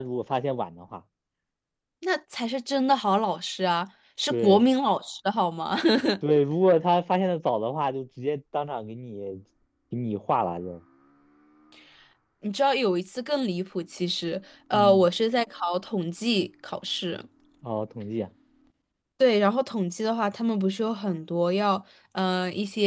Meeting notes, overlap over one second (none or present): none